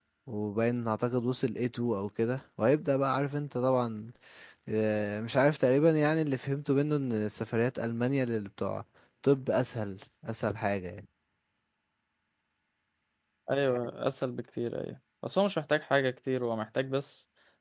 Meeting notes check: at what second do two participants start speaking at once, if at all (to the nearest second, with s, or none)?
none